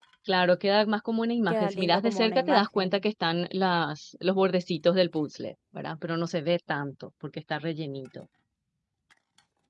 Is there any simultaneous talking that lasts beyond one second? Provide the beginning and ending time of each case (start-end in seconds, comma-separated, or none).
1.5-3.0